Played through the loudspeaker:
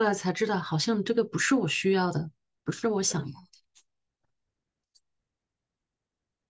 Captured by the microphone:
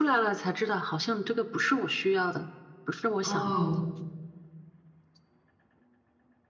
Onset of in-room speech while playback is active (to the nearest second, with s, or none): 3 s